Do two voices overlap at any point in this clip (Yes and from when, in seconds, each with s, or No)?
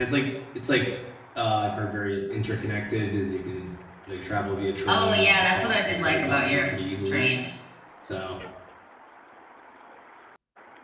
Yes, from 4.9 s